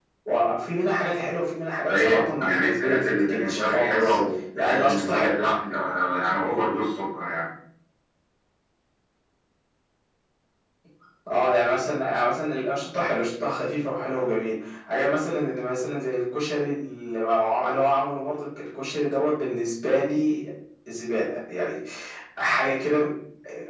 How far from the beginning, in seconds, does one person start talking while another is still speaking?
2 s

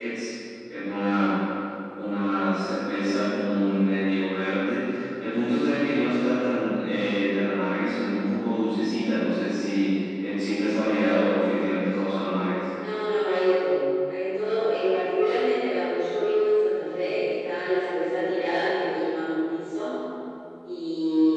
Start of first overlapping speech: none

